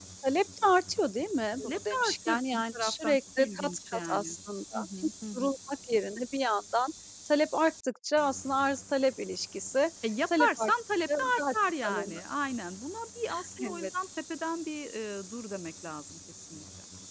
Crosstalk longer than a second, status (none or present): present